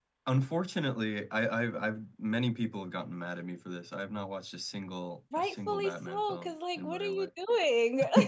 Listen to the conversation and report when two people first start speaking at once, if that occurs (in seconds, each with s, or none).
5.3 s